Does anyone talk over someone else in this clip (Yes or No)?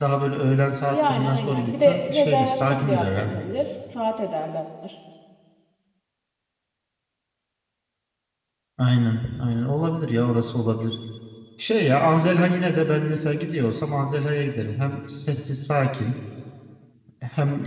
Yes